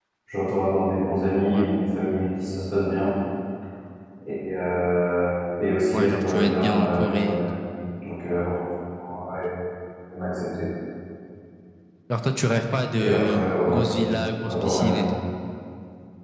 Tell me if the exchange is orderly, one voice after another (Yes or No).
No